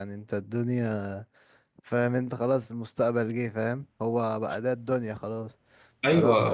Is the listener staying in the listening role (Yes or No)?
No